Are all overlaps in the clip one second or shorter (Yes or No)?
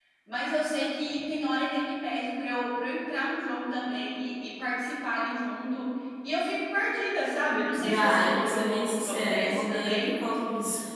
No